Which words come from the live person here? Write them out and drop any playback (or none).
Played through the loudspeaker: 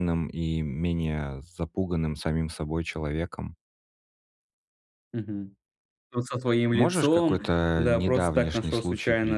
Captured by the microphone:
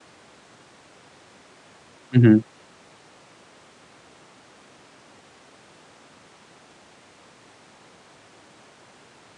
Мгм.